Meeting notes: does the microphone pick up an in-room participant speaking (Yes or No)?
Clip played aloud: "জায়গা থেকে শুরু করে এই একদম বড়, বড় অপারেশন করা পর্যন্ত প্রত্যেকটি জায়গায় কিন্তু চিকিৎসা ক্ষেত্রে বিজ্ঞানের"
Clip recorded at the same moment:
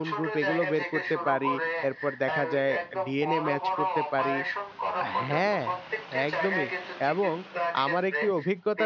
Yes